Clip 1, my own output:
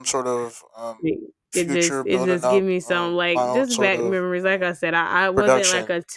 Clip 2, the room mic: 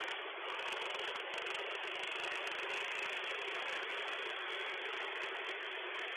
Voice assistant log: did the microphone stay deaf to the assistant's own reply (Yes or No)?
Yes